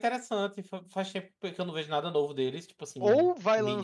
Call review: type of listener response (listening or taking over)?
taking over